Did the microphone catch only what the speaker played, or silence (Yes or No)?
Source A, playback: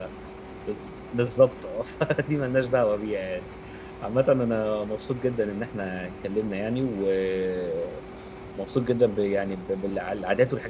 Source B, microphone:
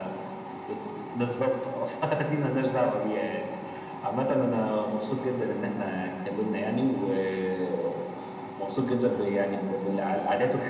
Yes